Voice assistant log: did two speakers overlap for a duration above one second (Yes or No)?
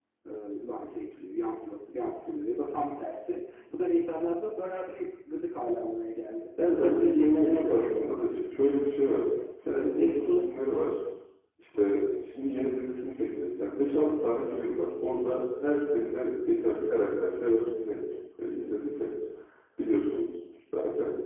Yes